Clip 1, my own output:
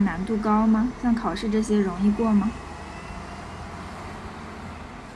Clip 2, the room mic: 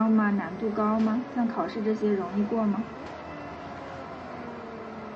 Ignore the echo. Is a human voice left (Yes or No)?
No